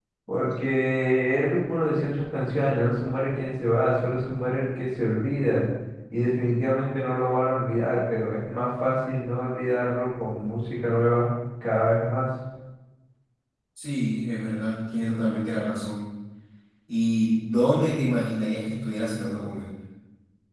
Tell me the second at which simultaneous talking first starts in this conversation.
none

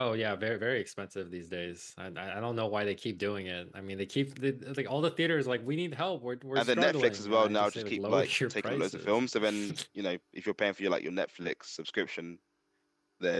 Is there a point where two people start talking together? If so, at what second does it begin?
7 s

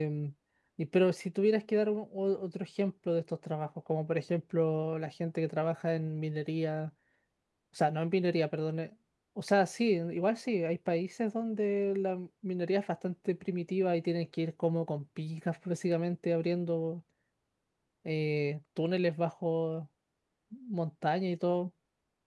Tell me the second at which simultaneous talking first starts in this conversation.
none

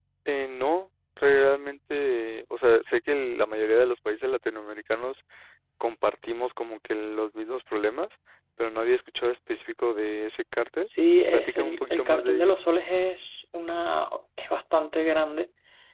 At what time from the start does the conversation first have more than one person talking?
11 s

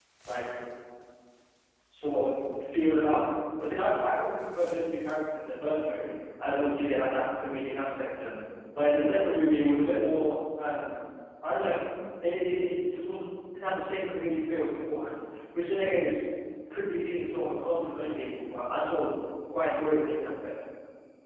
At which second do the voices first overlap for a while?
none

